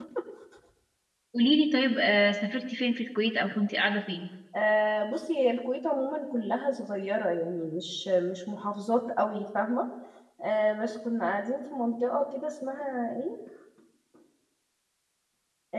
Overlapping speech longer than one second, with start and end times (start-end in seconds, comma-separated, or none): none